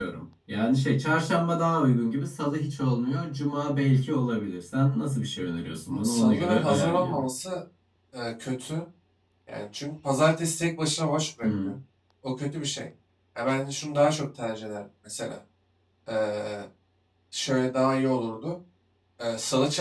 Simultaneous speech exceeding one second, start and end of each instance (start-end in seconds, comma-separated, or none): 5.9-7.2